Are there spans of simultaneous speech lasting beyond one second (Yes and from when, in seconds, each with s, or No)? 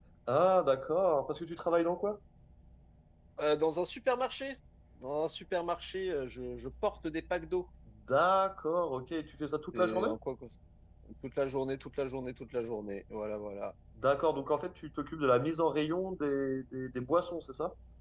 No